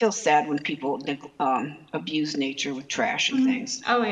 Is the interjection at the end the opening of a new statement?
Yes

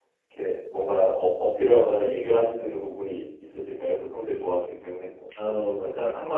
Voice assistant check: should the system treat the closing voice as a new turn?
Yes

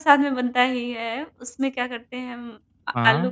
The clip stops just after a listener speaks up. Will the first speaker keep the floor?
Yes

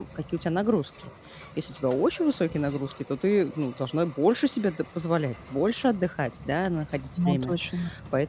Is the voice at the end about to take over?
No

